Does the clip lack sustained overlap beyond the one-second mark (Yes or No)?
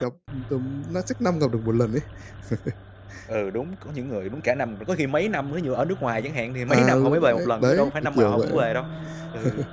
No